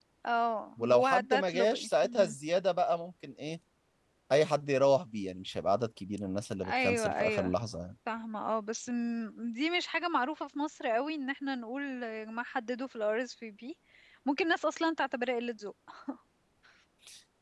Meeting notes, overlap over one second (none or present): present